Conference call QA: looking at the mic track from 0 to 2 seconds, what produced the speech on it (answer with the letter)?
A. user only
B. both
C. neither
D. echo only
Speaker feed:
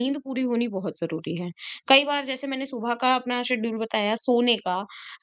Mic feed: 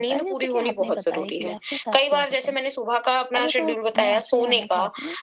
B